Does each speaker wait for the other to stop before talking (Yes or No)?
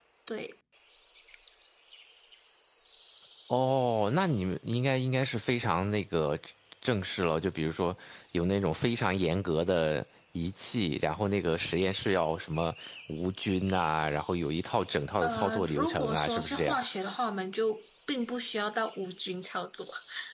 No